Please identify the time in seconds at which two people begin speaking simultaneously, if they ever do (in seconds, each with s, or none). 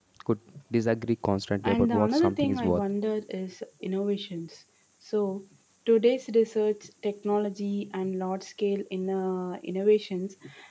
1.6 s